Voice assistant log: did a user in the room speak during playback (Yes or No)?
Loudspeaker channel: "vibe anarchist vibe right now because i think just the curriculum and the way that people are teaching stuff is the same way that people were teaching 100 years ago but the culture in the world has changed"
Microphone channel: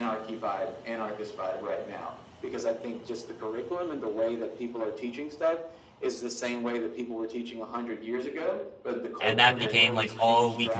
Yes